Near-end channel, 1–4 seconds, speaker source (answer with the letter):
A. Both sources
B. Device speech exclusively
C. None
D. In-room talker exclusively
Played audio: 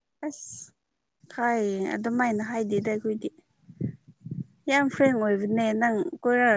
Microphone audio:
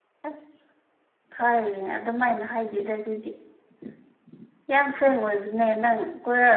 B